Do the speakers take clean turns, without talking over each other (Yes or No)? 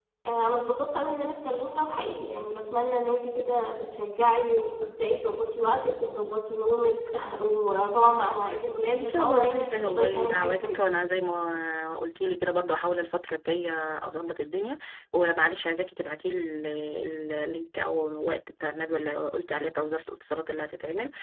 No